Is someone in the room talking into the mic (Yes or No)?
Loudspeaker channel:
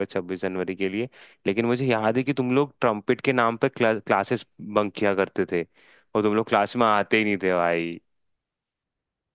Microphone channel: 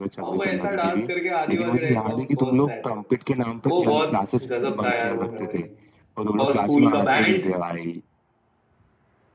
Yes